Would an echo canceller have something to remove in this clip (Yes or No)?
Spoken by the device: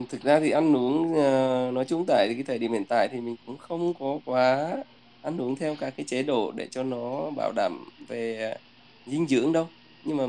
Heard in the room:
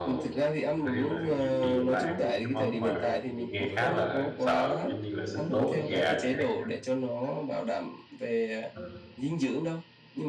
Yes